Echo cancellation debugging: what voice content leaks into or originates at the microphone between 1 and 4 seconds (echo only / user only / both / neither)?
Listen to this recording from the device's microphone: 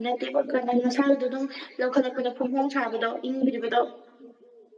echo only